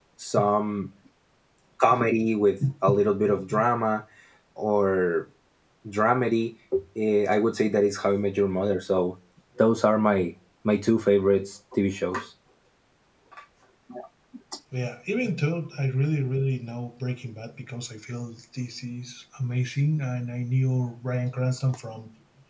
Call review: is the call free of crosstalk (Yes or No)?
Yes